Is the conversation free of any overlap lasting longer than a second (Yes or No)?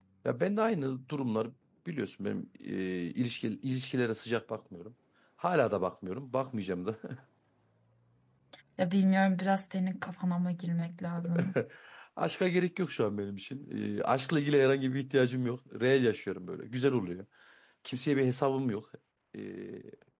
Yes